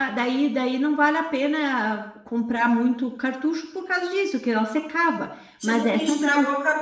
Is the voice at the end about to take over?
Yes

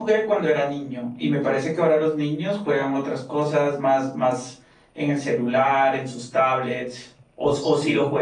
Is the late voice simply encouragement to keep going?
No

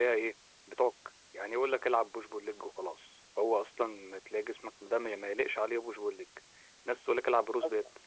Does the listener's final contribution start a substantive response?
No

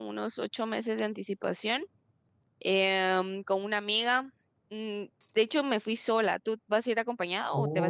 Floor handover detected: Yes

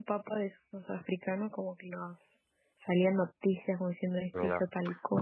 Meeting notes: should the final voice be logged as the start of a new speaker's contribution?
Yes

